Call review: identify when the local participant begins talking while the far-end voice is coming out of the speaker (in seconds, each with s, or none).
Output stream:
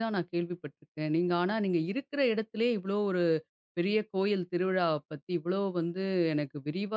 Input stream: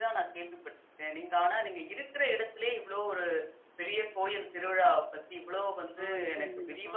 6.0 s